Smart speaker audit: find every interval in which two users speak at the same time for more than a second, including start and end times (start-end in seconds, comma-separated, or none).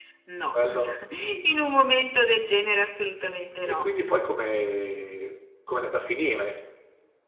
none